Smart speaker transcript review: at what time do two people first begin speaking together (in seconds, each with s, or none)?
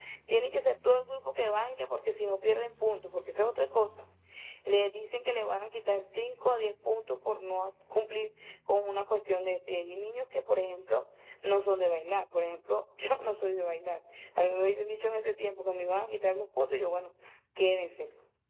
none